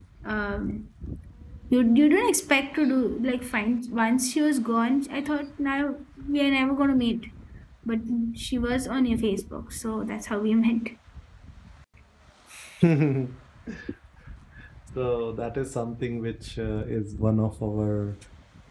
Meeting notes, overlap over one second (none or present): none